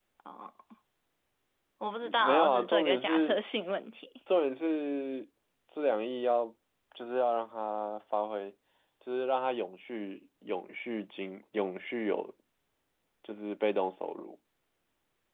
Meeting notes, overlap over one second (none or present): present